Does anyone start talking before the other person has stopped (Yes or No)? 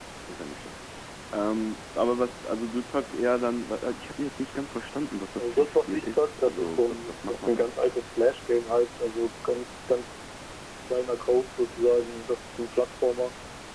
Yes